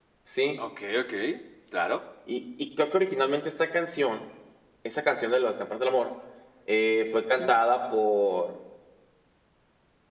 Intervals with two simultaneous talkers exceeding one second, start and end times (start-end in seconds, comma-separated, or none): none